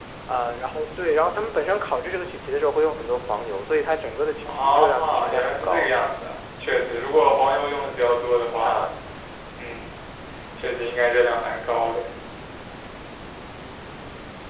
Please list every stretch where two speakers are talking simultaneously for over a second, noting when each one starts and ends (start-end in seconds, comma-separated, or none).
4.4-5.9